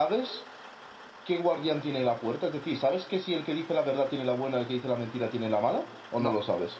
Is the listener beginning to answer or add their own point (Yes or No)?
Yes